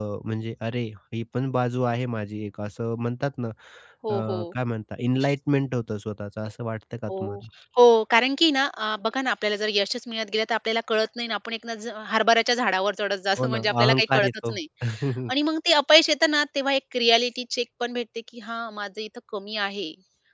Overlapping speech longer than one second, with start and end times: 13.4-14.6

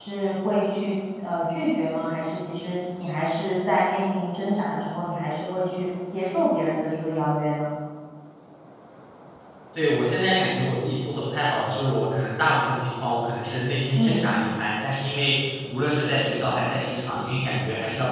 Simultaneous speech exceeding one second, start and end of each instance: none

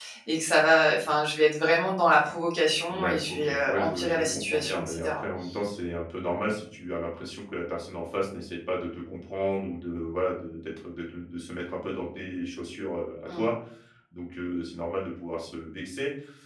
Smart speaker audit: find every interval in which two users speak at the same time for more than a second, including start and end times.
2.9-5.2

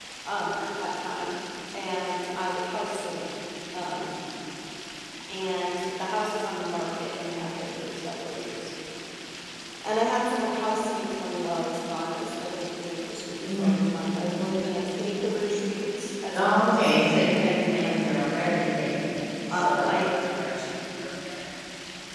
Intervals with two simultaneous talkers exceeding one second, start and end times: 16.3-18.6

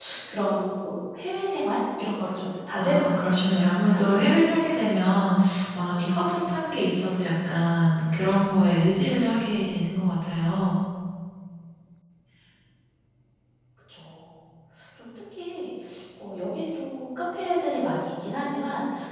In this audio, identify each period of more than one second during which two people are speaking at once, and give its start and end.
2.7-4.7

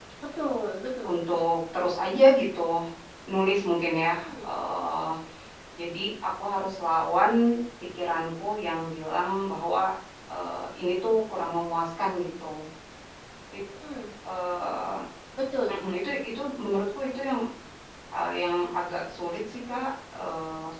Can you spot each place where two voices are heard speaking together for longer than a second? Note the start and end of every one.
none

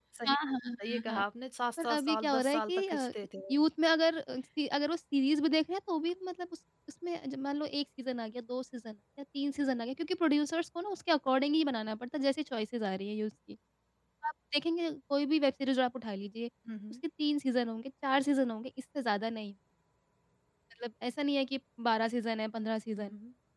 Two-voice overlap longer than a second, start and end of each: 1.8-3.1

